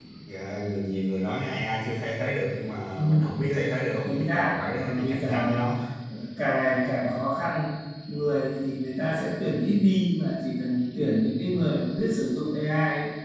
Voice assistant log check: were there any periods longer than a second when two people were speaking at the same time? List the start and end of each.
4.0-5.6

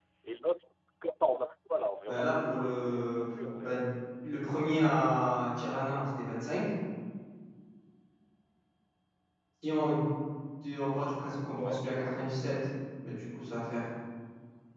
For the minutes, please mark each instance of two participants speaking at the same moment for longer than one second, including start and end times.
2.1-3.8

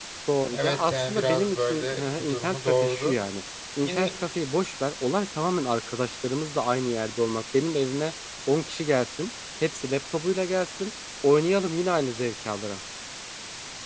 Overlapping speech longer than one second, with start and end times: 0.5-3.2

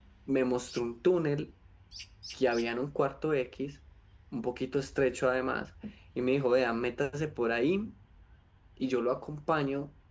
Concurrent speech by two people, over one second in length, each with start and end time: none

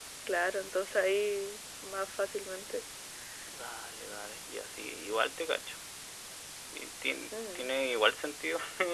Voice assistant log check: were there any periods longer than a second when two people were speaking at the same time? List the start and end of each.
none

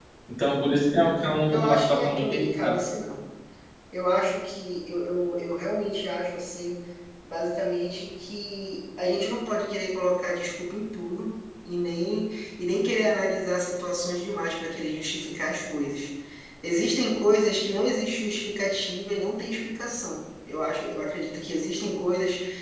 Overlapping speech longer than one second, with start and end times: 1.5-2.8

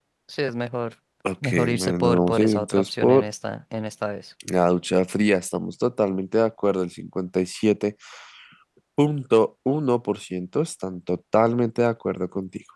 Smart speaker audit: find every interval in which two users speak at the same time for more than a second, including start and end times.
1.4-3.3

